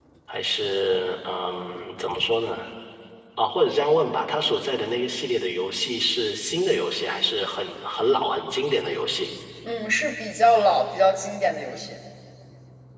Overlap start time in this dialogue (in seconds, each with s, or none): none